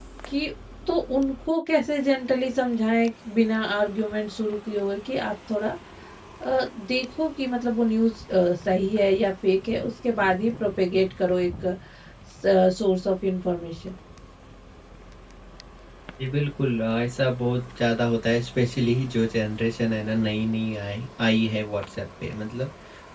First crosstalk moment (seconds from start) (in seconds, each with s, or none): none